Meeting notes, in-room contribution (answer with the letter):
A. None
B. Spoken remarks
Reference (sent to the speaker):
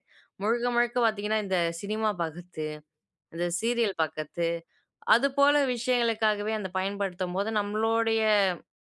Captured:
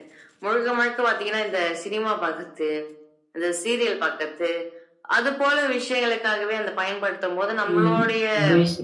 B